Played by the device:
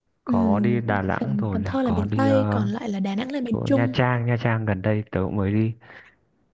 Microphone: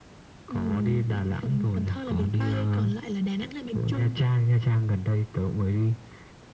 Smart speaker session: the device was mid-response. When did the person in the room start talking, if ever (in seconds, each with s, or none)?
none